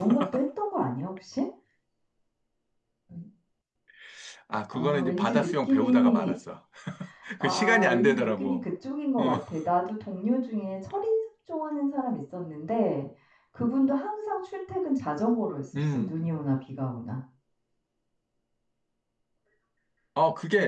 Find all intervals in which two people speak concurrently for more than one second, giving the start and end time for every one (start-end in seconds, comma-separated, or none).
4.7-6.3, 7.4-8.7